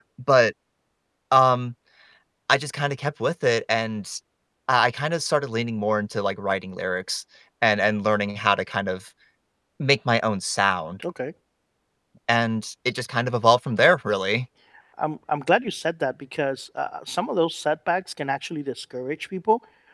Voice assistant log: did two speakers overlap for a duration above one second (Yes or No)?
No